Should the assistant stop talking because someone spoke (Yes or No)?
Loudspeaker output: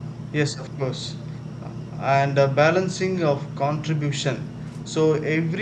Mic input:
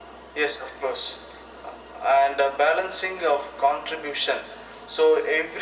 No